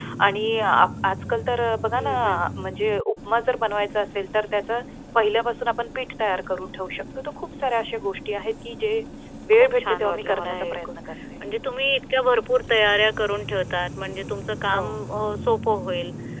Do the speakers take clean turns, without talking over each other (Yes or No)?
No